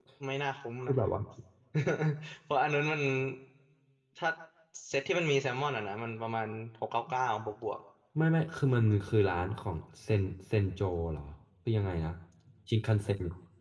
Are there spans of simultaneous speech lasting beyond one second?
No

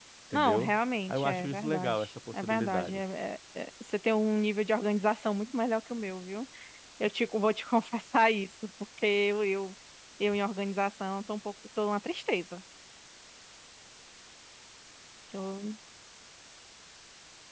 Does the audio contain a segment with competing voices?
Yes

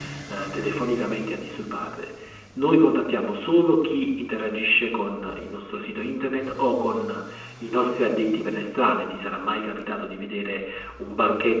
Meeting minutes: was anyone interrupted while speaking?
No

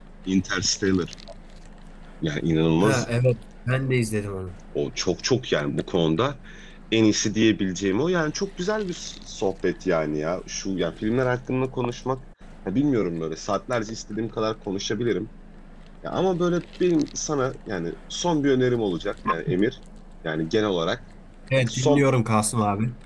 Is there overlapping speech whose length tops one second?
No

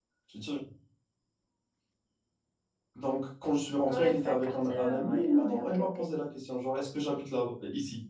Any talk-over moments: Yes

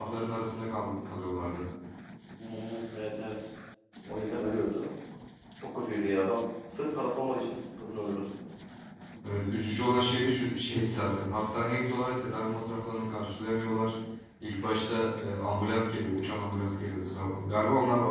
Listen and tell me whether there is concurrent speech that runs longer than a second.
No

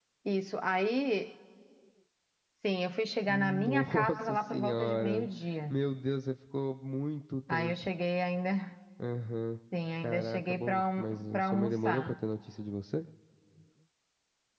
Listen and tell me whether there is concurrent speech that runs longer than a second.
Yes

